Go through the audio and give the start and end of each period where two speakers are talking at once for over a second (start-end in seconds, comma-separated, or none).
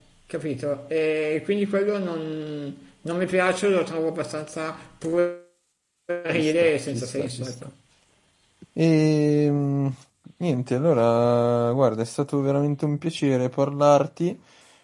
6.3-7.5